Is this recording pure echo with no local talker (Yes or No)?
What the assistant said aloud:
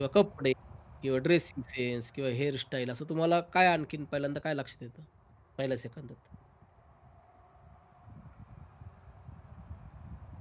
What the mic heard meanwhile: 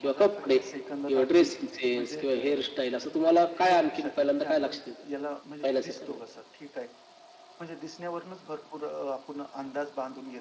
No